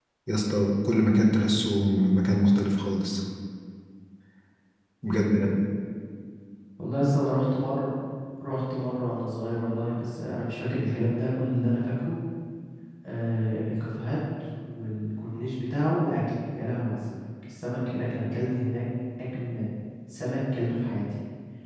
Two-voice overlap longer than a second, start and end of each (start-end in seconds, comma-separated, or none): none